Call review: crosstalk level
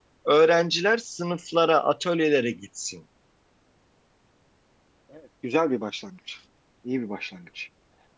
none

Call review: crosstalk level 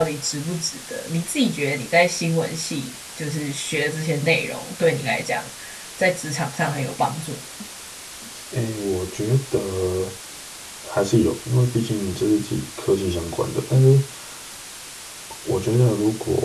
none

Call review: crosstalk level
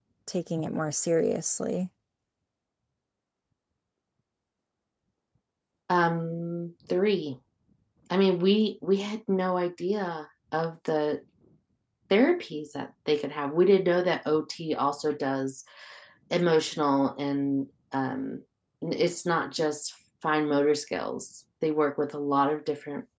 none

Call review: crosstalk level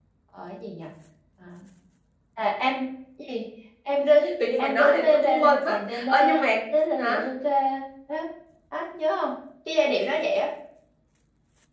present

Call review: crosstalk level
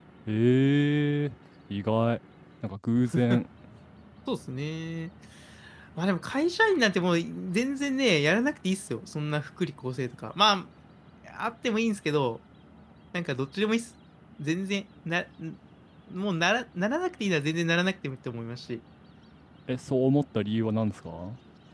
none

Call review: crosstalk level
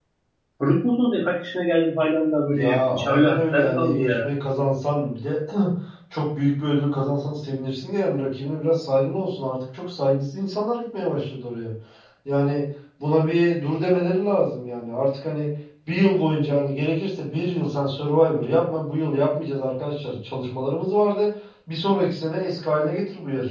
present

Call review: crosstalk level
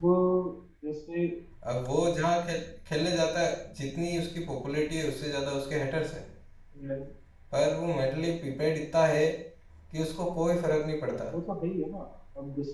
none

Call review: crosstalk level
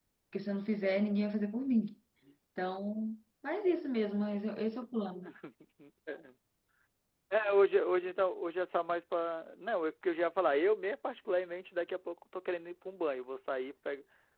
none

